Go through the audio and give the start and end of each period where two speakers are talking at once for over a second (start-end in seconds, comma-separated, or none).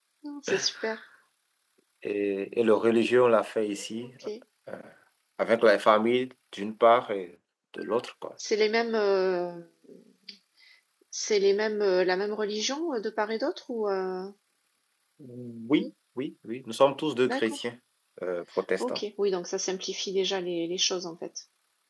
none